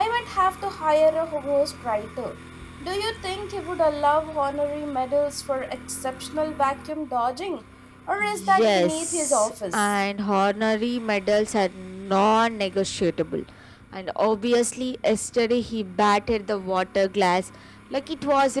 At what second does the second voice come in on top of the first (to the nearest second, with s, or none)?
8 s